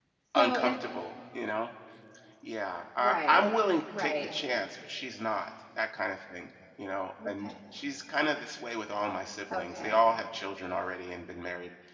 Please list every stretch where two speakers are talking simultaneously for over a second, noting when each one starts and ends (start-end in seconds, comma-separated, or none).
none